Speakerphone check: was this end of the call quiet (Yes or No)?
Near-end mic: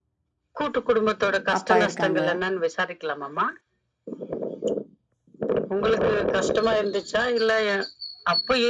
No